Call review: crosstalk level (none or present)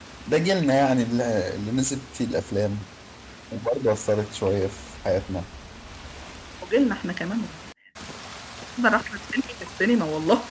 none